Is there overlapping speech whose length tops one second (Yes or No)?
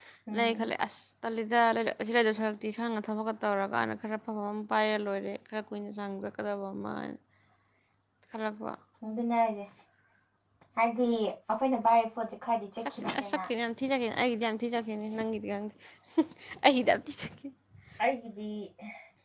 No